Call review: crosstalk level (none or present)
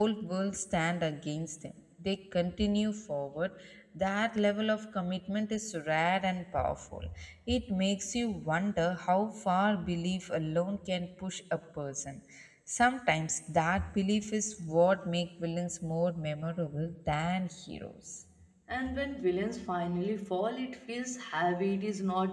none